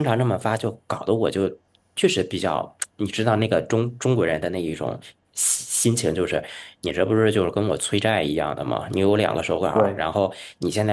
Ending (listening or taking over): listening